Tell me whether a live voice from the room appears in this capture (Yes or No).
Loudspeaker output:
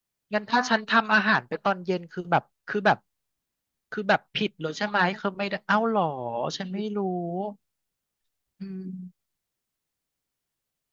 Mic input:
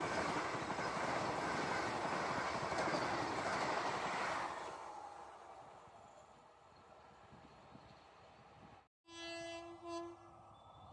No